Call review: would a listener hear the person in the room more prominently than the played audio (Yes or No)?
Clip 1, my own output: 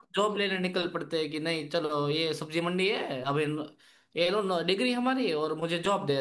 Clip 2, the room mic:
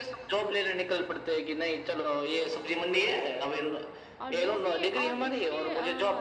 No